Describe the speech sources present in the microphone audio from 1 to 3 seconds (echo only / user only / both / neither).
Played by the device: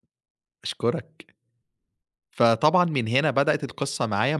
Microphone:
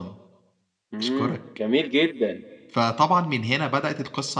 both